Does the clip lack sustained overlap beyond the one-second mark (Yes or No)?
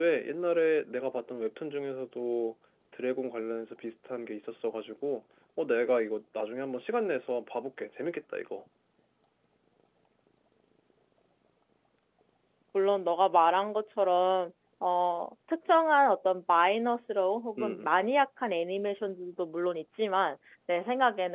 Yes